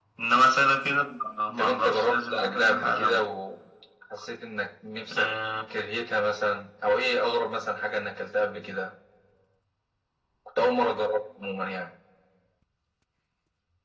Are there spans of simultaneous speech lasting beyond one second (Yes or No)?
Yes